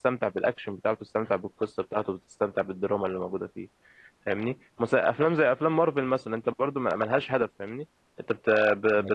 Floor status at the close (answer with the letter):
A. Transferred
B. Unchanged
B